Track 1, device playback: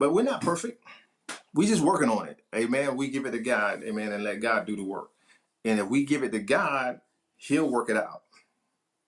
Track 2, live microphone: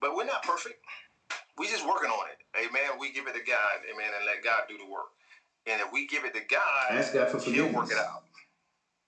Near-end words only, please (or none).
Ask God for forgiveness.